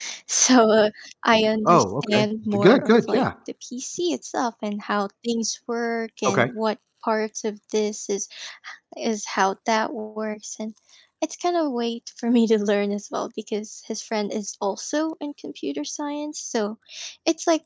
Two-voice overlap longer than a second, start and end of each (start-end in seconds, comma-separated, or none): 1.6-3.2